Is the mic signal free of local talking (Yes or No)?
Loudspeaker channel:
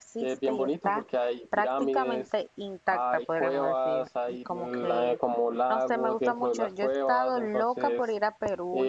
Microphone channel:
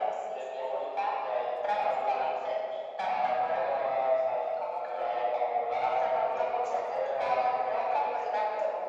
Yes